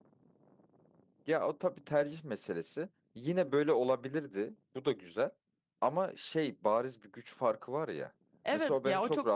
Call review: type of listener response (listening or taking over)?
taking over